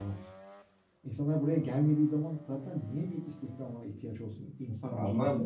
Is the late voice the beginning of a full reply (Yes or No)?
Yes